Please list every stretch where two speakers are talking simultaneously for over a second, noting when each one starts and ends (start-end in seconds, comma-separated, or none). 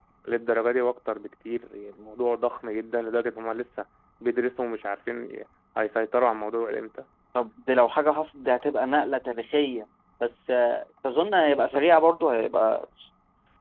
none